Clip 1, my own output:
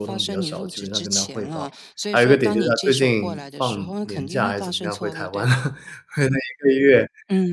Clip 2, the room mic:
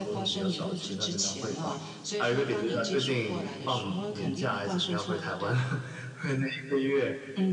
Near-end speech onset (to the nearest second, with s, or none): none